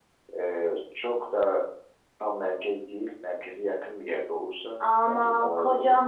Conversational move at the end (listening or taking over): taking over